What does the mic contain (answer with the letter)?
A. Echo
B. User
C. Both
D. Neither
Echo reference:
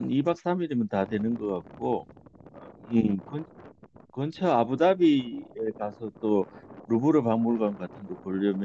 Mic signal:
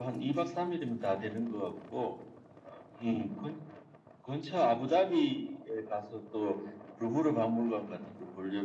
A